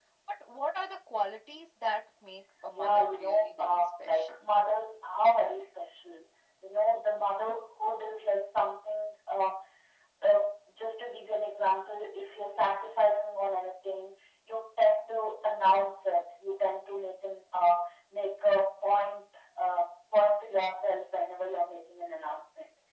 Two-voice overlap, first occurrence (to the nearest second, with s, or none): 3 s